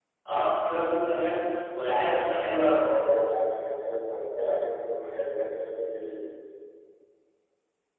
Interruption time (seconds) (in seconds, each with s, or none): none